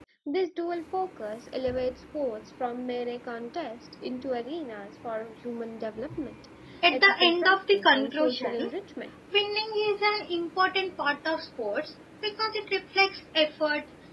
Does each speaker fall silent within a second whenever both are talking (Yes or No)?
No